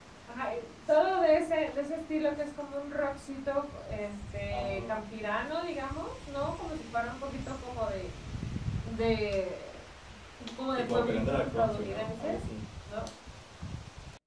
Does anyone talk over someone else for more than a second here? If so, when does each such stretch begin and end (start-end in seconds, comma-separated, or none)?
10.8-12.4